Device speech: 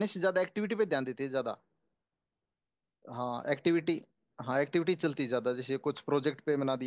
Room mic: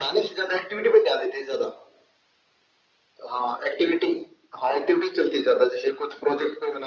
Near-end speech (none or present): none